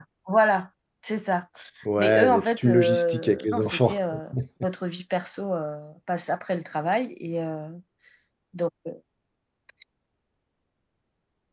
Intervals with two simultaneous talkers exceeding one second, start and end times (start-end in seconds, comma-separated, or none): 2.0-4.0